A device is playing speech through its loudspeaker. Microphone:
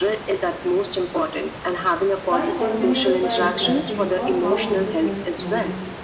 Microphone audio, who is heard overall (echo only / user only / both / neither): both